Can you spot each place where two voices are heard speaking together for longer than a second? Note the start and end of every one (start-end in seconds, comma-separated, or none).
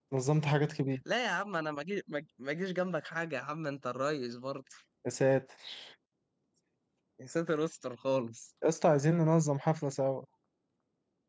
none